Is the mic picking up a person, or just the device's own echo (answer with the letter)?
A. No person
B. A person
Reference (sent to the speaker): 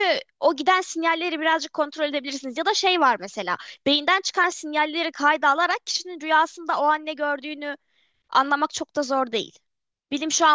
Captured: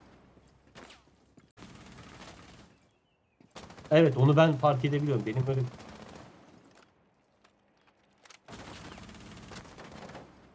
B